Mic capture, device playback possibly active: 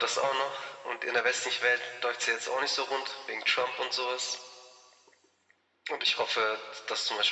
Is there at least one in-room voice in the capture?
No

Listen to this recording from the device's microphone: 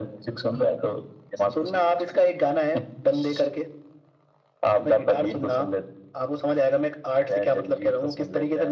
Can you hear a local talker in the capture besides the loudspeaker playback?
No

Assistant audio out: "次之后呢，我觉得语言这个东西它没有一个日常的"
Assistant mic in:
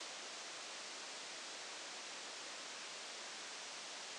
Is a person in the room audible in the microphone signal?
No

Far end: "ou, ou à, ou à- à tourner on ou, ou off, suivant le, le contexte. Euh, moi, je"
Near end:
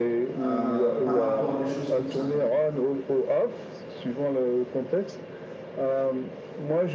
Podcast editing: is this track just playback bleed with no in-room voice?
No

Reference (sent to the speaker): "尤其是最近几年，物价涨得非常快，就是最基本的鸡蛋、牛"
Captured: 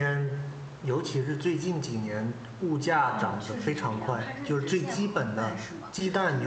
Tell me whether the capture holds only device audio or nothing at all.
No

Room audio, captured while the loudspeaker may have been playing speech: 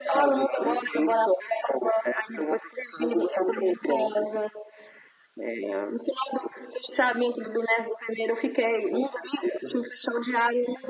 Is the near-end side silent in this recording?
Yes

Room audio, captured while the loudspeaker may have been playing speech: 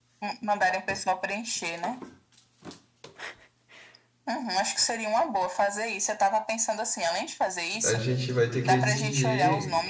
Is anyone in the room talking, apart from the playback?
Yes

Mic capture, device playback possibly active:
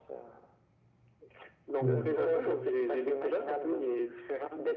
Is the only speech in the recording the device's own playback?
No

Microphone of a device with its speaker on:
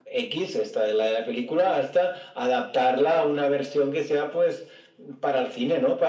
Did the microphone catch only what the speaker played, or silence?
Yes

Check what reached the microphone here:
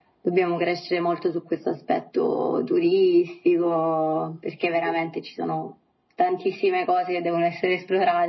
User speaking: No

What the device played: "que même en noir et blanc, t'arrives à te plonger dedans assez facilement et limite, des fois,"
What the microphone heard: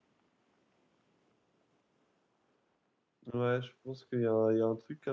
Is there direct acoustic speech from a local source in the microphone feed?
Yes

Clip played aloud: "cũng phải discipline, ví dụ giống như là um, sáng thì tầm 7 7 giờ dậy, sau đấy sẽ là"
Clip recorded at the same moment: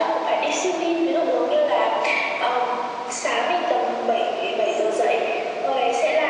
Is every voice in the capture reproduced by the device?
Yes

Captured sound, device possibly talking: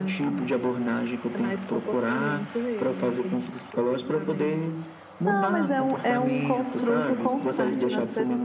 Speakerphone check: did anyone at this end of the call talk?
Yes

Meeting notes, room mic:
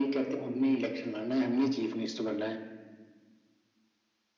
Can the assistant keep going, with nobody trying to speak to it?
Yes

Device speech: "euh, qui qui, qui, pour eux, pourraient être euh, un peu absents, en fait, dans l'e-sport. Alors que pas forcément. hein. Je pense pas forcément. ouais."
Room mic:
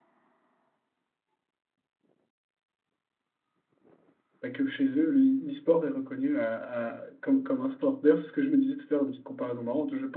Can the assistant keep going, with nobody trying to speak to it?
No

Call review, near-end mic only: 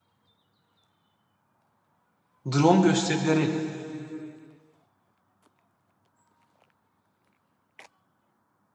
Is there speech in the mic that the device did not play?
Yes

